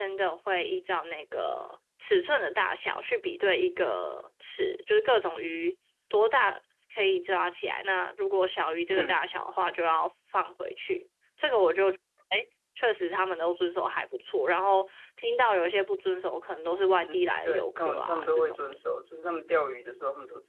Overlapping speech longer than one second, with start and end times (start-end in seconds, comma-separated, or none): 17.0-18.6